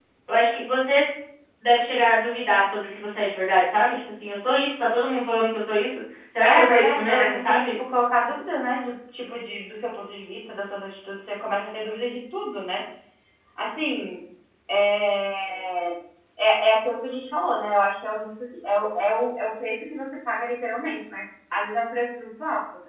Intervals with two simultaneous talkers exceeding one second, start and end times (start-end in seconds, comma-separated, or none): 6.4-7.7